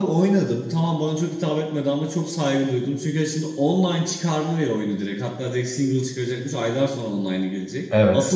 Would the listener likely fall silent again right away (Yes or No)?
Yes